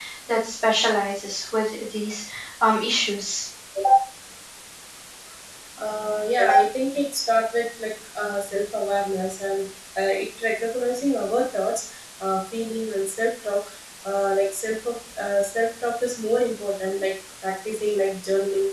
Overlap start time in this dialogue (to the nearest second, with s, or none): none